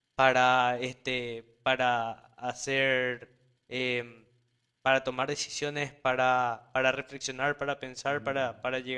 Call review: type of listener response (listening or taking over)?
listening